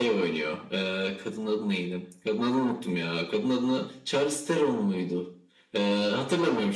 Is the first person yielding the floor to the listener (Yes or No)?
No